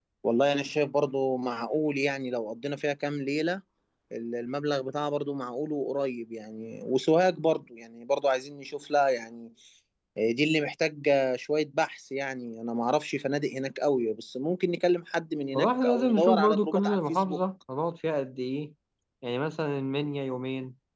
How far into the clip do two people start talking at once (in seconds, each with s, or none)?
15.5 s